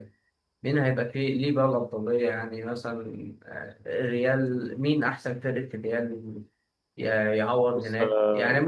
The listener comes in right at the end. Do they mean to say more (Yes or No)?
No